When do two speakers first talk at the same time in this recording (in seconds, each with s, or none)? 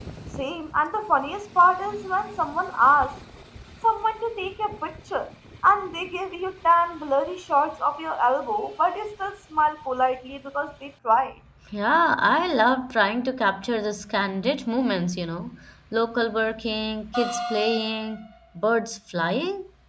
none